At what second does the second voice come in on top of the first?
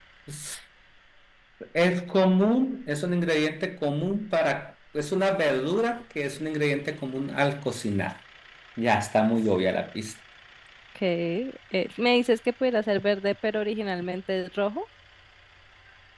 none

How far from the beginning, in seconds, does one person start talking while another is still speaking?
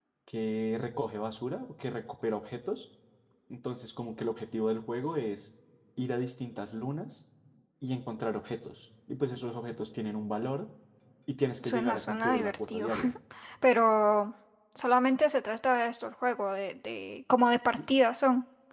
11.6 s

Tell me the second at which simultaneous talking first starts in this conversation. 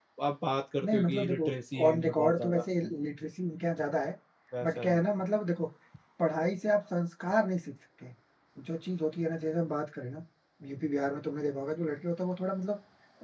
0.8 s

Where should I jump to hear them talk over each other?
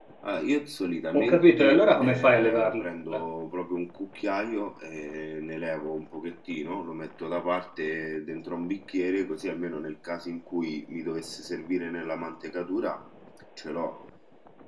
1.1 s

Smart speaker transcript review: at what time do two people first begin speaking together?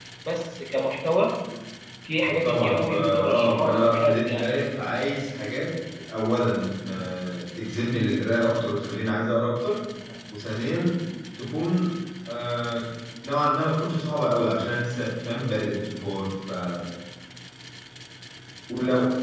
2.4 s

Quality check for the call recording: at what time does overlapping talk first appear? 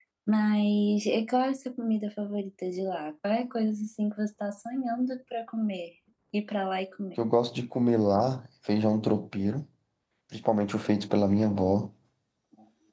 none

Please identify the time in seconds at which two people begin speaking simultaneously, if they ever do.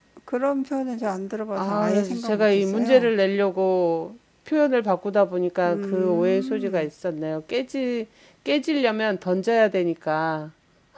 1.6 s

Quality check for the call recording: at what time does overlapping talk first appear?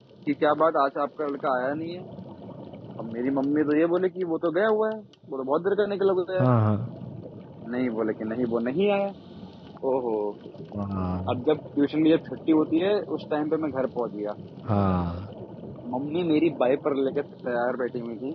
none

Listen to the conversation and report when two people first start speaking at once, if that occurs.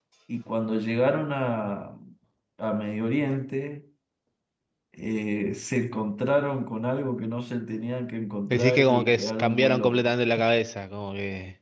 8.4 s

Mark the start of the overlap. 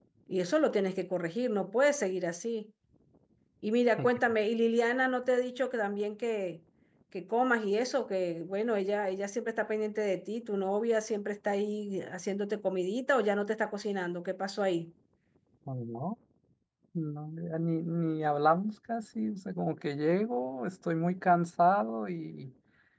none

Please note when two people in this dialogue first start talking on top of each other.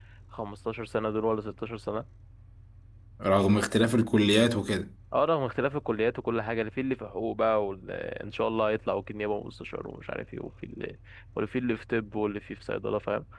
none

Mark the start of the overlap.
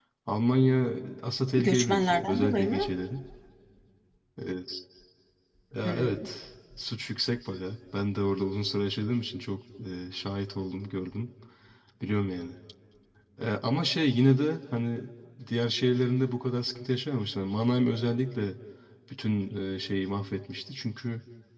1.6 s

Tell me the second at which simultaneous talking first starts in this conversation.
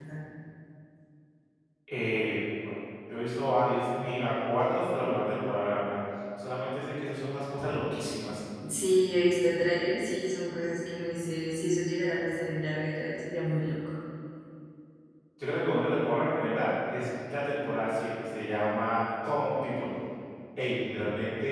none

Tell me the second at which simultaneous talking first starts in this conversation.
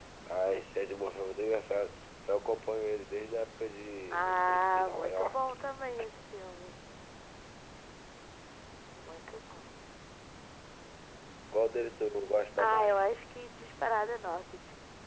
4.1 s

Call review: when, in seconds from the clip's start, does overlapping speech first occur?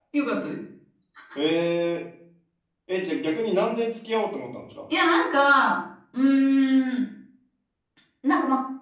none

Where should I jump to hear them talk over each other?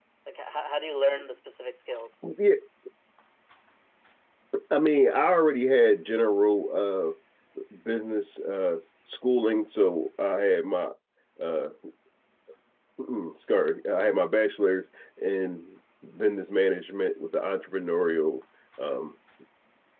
none

